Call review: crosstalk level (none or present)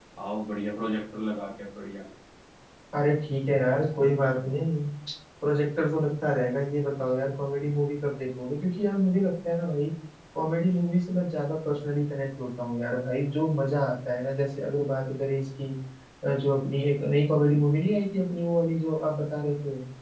none